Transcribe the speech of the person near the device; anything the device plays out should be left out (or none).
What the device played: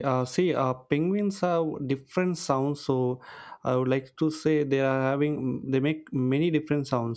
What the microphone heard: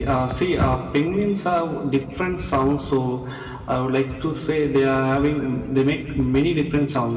none